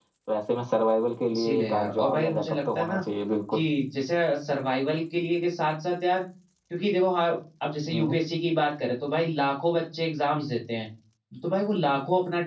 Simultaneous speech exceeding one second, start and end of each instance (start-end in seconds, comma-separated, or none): 1.3-3.0